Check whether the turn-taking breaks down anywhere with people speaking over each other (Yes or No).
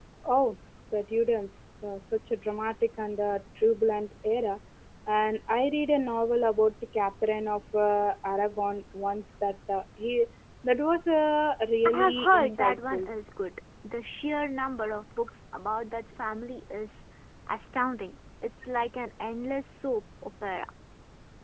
Yes